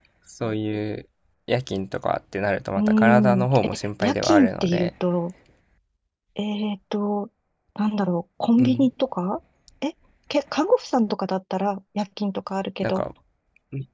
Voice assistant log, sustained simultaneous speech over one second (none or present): present